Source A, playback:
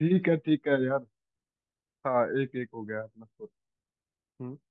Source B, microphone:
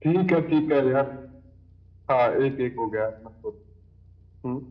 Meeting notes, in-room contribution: none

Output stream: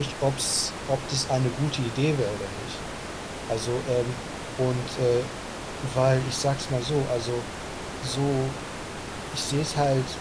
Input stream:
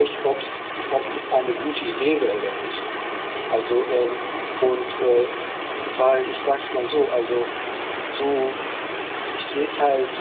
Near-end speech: none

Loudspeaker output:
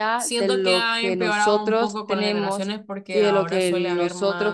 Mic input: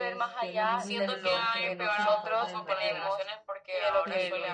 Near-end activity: present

